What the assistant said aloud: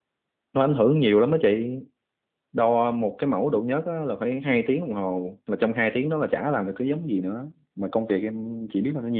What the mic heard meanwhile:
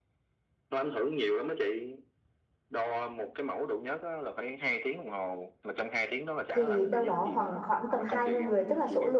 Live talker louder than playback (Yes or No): Yes